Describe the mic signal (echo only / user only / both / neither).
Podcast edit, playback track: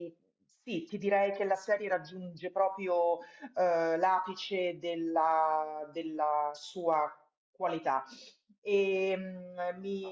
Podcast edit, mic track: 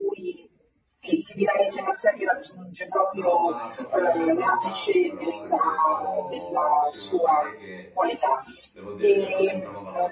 both